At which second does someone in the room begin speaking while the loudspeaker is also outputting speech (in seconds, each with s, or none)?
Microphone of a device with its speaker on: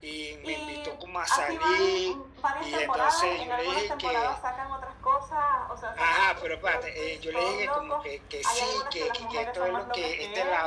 none